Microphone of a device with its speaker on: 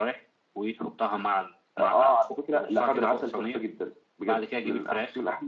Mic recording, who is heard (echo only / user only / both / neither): echo only